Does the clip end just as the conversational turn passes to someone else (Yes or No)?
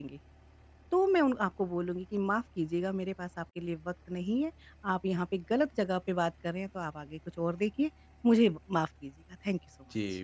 Yes